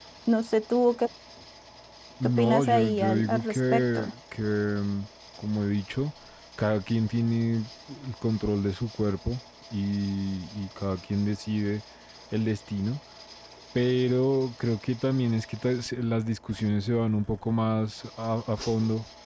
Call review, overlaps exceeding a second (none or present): present